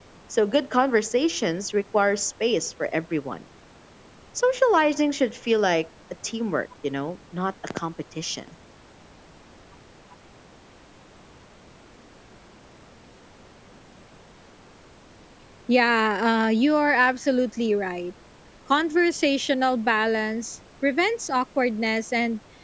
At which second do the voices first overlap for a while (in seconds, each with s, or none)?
none